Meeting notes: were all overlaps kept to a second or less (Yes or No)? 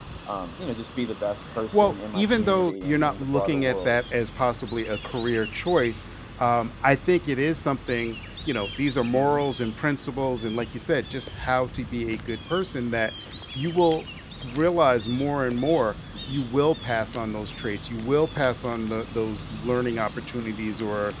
No